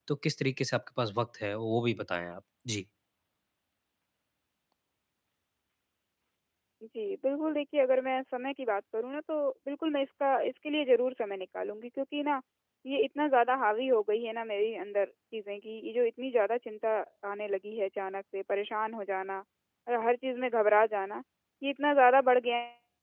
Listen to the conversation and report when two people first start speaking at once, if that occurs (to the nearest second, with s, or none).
none